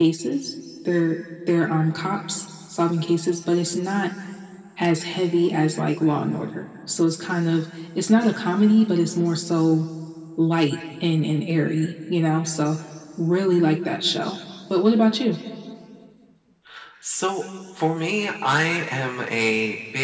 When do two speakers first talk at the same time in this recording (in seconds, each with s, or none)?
none